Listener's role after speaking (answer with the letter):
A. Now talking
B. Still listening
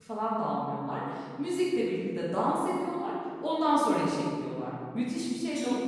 A